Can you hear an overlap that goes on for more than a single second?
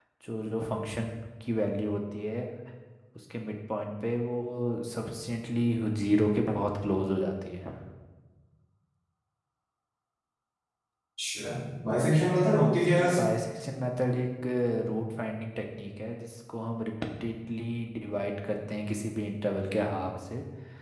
No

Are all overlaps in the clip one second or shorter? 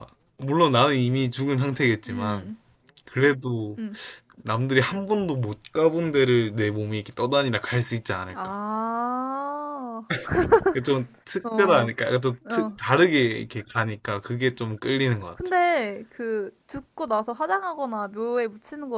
Yes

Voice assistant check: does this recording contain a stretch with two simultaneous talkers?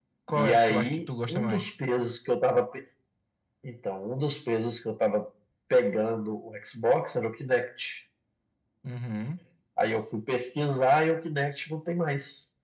Yes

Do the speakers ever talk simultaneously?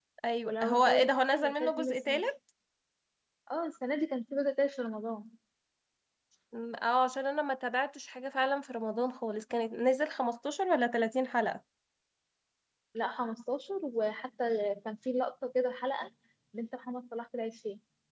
Yes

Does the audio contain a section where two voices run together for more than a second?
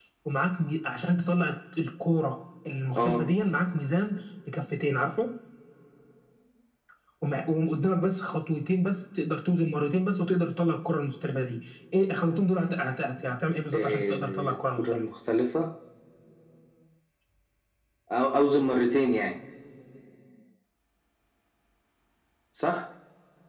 Yes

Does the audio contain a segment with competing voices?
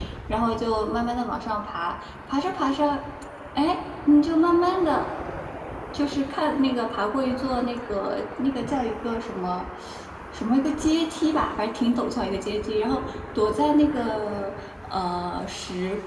No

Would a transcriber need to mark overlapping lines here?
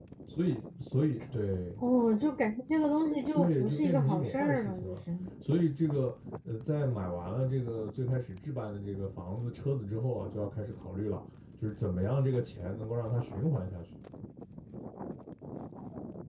Yes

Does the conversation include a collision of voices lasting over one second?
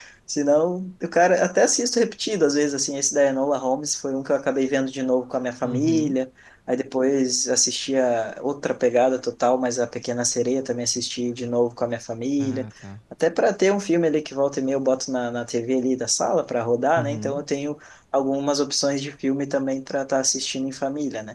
No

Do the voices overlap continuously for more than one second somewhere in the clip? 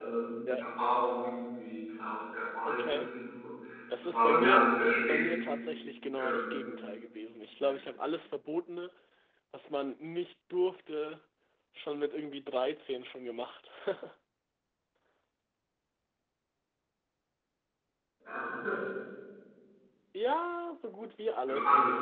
Yes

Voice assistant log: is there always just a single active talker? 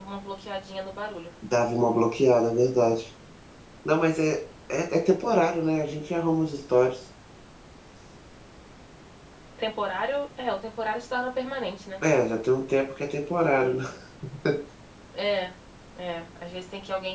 Yes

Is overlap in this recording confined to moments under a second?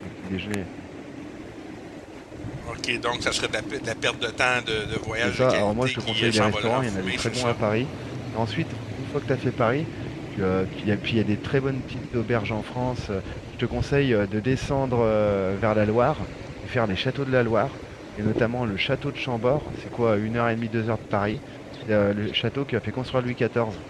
No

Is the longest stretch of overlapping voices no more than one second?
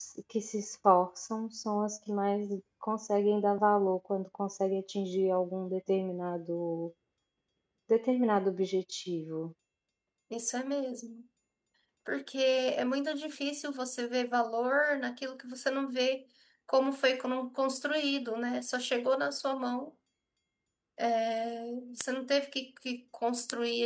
Yes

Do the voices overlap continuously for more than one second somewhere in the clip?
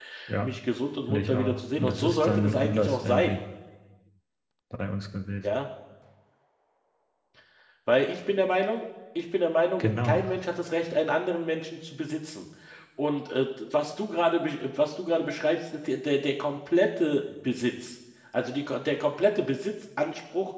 Yes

